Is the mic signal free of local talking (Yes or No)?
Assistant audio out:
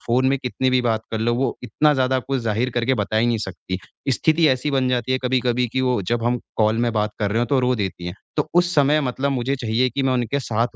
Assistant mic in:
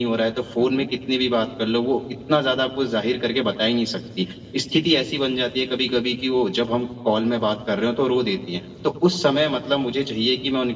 No